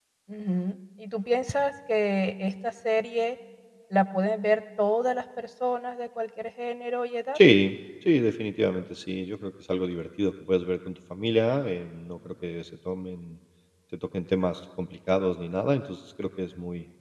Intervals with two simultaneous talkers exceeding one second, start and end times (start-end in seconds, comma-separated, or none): none